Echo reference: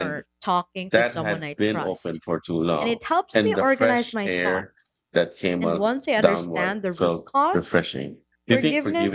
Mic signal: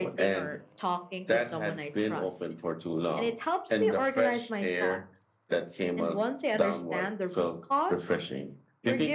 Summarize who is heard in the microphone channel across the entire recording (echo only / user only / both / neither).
echo only